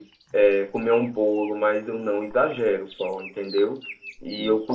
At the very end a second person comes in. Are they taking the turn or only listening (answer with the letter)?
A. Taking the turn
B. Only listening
B